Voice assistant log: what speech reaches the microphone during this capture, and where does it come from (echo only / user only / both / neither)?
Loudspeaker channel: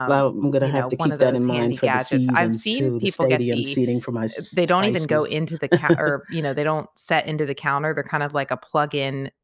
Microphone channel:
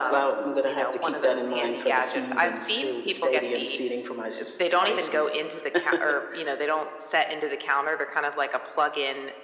echo only